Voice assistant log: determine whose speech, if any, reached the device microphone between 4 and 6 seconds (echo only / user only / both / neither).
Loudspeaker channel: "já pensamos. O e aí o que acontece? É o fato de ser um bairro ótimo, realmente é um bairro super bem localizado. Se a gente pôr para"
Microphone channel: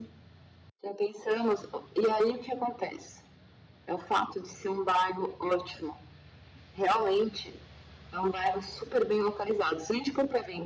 echo only